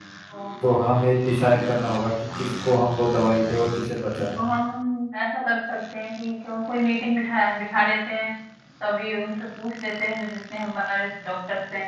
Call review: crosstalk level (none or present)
none